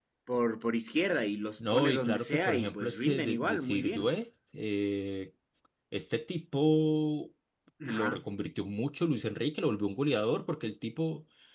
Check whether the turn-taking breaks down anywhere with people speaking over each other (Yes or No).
Yes